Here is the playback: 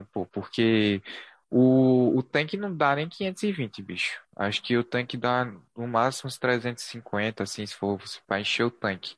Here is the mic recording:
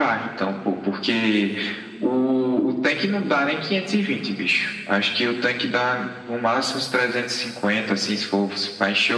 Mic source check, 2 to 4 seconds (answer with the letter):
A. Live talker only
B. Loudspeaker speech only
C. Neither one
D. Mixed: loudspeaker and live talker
B